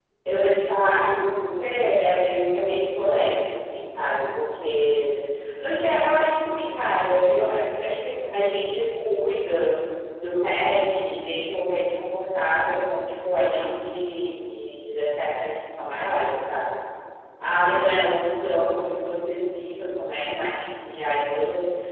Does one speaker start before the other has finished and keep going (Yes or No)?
No